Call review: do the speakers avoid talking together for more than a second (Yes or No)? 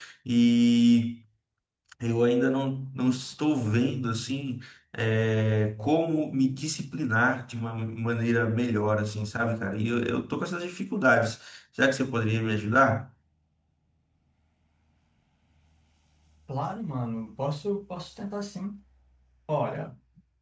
Yes